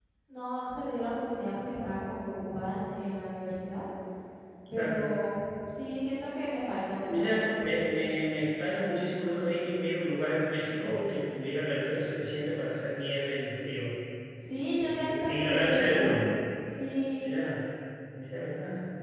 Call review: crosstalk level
present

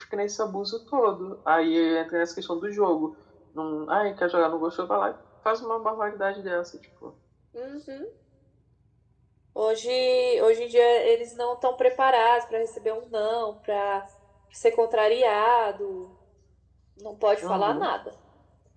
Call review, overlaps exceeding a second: none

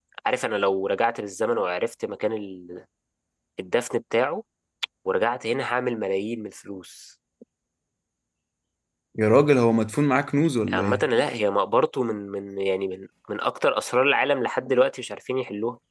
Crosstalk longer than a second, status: none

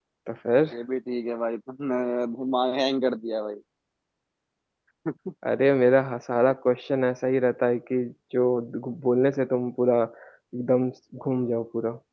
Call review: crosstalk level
none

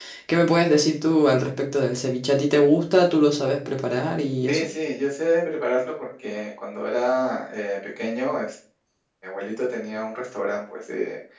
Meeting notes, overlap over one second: none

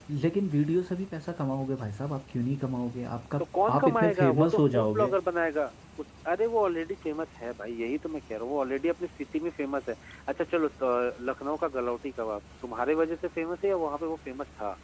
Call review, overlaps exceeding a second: present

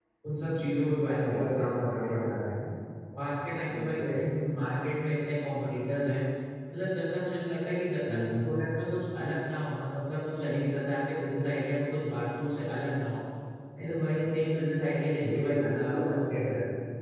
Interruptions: present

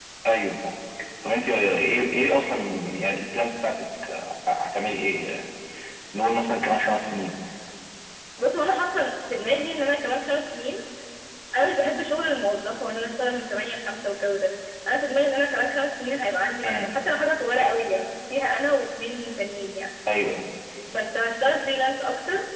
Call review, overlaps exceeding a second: none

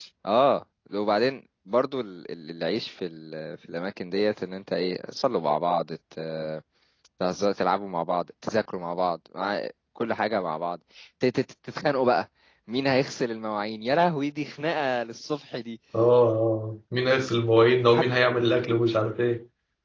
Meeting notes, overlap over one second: none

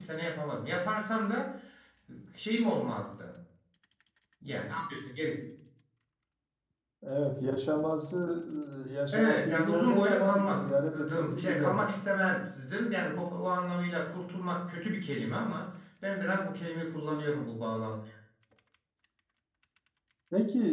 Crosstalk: present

